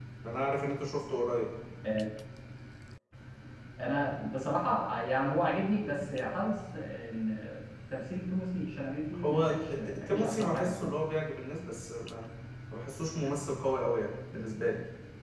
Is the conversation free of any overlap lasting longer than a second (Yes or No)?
No